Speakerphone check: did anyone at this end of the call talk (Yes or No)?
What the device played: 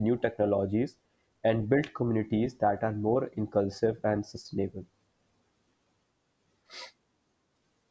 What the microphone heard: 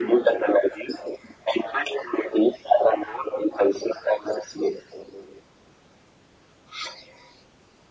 No